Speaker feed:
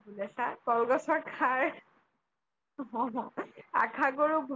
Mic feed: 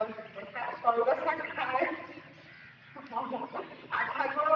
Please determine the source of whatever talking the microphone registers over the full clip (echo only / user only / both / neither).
echo only